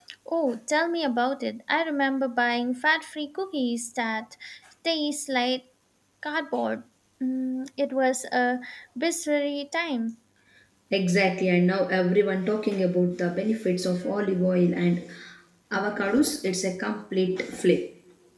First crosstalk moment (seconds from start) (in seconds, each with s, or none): none